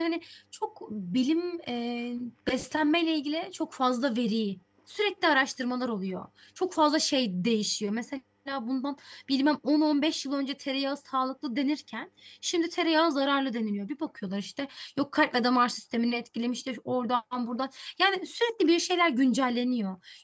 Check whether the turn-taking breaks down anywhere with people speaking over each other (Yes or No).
No